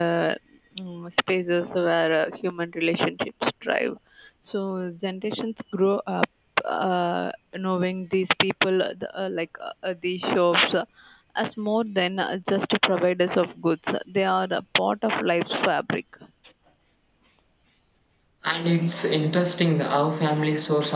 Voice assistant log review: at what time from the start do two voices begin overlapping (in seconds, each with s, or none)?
none